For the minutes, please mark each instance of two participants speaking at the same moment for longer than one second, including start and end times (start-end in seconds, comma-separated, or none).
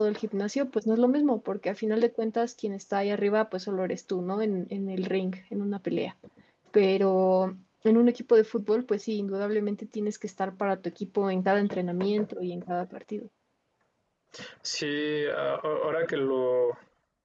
none